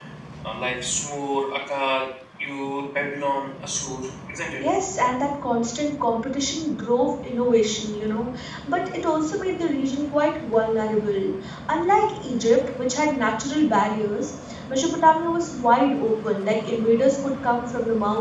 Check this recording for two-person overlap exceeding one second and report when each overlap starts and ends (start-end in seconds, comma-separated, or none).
none